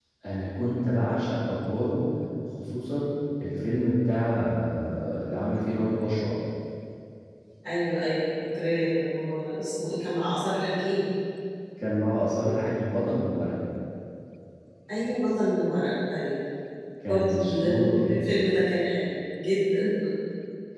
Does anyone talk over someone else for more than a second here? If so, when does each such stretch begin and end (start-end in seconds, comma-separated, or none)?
17.1-18.3